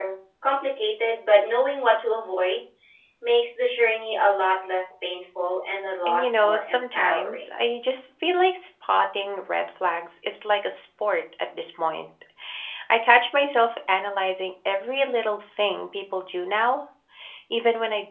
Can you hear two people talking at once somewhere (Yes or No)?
Yes